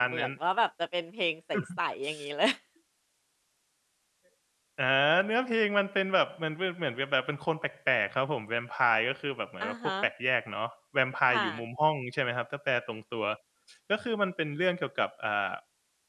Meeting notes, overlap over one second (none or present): none